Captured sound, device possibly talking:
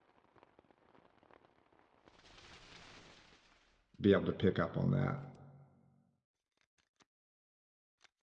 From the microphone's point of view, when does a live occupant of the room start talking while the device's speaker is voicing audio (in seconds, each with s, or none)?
4.0 s